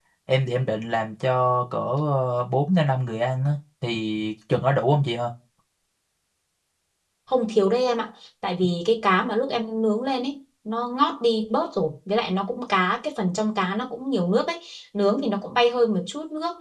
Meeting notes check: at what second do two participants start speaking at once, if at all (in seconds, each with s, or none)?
none